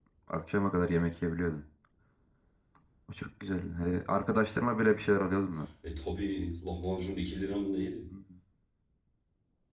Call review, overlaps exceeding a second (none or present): none